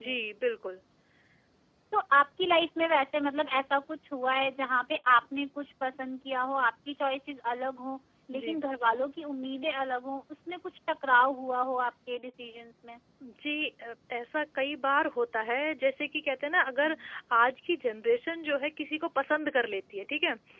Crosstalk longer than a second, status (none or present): none